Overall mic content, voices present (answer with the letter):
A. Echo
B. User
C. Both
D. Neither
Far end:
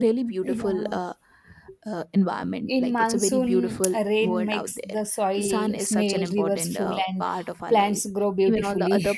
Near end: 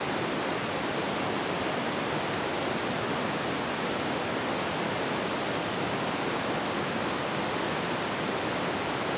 D